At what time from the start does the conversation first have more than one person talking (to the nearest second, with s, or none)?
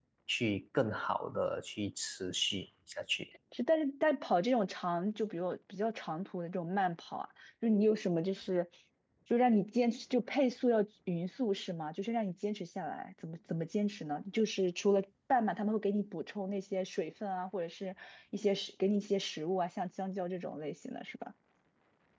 none